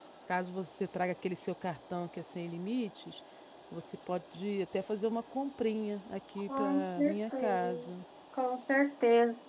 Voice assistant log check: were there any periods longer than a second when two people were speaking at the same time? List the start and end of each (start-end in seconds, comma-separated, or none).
6.5-7.9